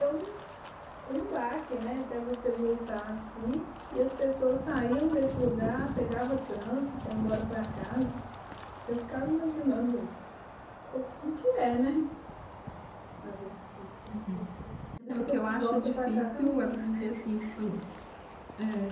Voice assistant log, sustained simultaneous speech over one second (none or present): present